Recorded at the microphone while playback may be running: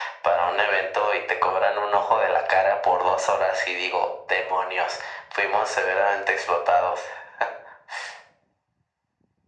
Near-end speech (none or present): none